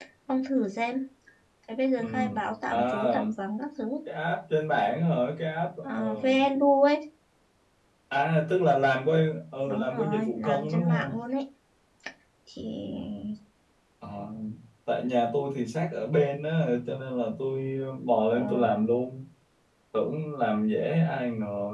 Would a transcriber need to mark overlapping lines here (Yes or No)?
Yes